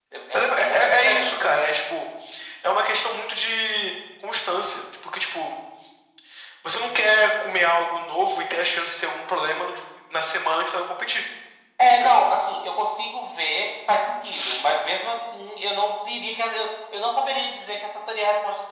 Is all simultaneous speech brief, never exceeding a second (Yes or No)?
No